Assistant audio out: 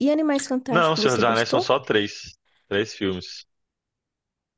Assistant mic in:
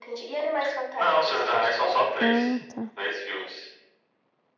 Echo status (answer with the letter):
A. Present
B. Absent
A